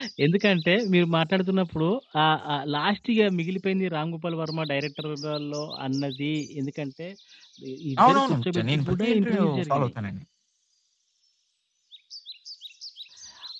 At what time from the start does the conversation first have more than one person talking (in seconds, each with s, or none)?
8.0 s